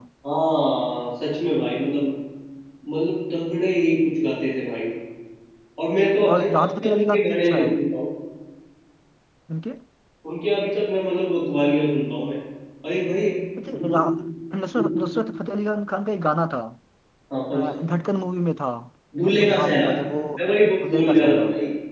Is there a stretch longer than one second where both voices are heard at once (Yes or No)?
Yes